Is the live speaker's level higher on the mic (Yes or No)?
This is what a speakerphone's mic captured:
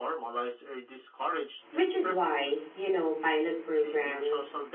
Yes